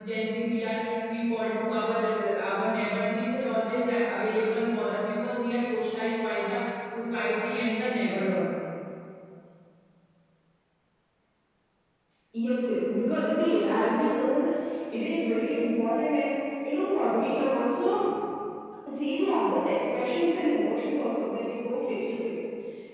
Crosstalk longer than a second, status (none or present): none